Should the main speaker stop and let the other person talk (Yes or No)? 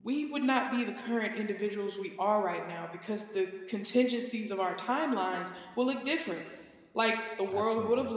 No